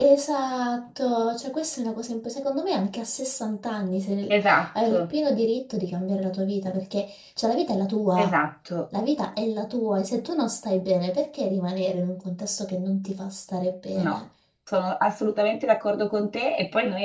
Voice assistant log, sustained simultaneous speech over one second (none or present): none